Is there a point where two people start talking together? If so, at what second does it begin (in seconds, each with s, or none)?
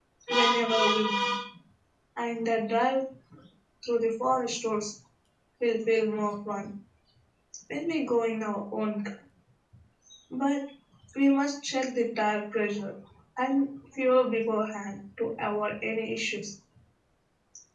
none